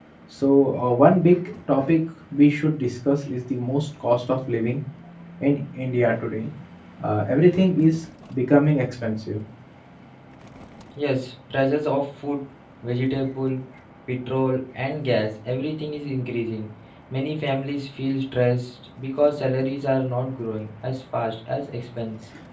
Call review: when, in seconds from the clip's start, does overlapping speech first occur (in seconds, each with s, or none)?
none